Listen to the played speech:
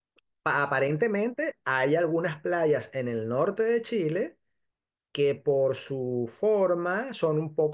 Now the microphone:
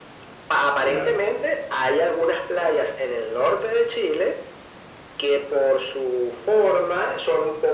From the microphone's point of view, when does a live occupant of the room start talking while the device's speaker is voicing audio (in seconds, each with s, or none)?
0.8 s